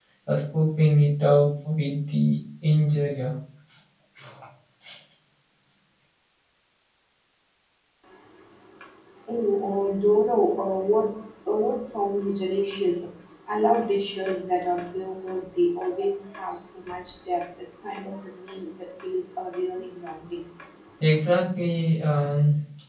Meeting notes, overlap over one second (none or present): none